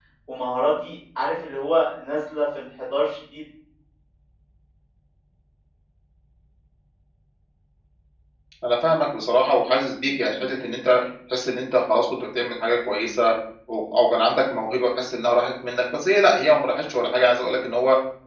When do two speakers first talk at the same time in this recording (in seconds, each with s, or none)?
none